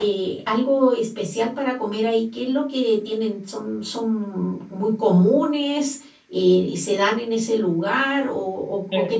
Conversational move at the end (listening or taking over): taking over